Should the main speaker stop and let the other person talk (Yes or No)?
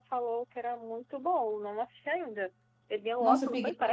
Yes